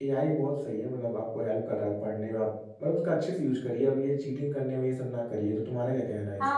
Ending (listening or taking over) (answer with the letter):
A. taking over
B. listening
A